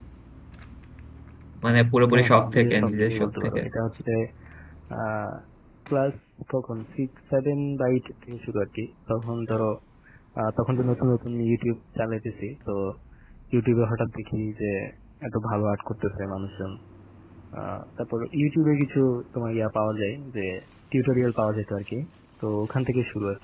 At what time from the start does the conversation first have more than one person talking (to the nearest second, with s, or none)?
2 s